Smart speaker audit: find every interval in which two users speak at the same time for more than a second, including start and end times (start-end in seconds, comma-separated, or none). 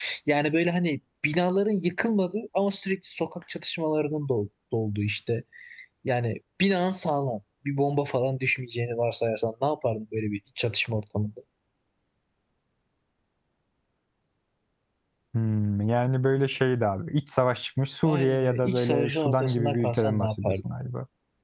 18.0-20.6